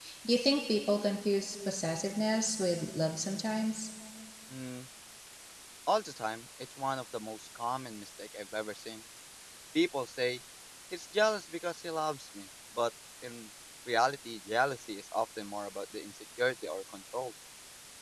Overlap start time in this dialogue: none

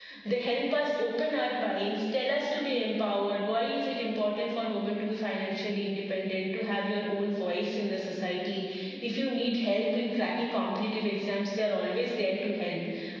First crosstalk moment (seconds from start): none

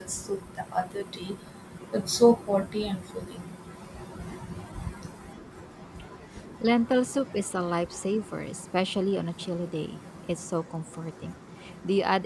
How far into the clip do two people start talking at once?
none

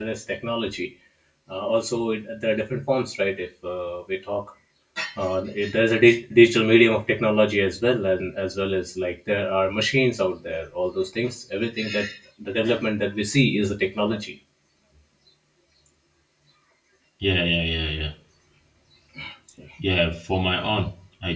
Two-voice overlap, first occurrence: none

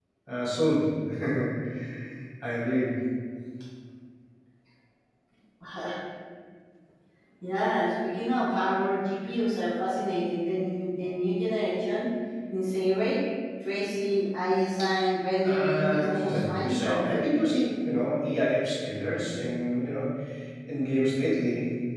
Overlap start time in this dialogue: 15.4 s

